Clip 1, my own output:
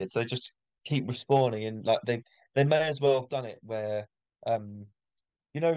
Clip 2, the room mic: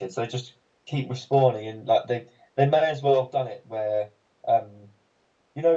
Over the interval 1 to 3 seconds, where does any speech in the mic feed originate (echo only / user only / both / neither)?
echo only